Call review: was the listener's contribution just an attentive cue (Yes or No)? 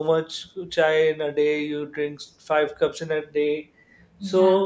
Yes